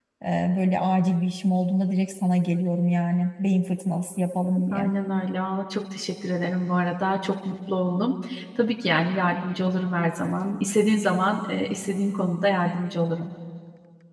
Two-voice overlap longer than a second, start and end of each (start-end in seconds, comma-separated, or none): none